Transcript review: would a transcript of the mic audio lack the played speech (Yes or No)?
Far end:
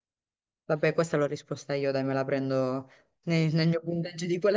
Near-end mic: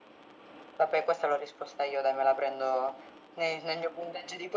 No